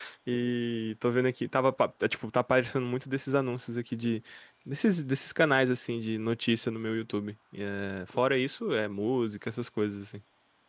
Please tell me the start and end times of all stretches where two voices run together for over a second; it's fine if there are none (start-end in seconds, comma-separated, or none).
none